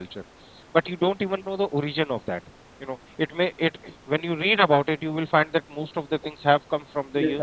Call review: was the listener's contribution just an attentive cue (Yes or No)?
Yes